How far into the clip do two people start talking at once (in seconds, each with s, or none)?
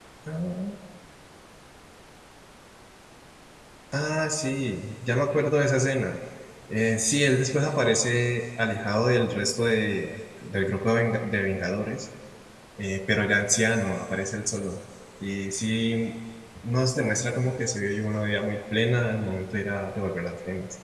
none